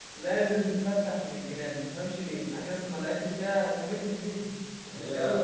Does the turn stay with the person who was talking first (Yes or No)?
Yes